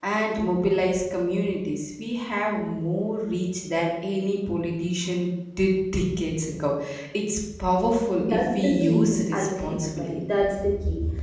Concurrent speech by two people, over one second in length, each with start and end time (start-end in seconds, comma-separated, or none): 8.2-10.2